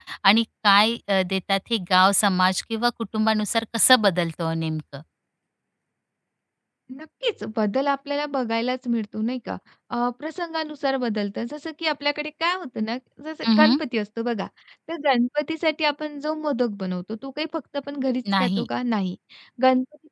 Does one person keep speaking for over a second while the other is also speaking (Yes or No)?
No